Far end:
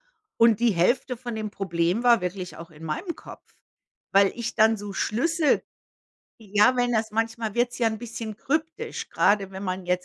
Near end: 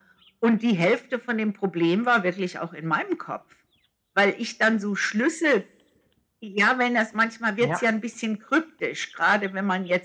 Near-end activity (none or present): present